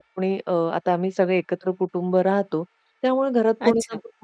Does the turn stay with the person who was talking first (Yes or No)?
Yes